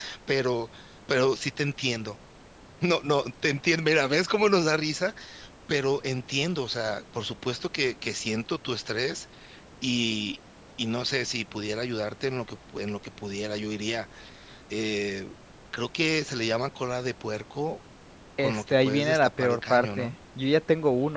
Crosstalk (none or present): present